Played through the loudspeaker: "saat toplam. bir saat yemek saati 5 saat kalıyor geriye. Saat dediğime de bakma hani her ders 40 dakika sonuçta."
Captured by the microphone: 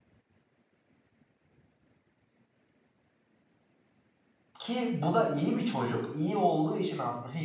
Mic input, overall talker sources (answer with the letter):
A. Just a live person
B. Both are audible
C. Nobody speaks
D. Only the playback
A